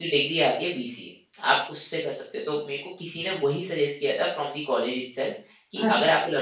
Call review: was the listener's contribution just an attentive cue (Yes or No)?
Yes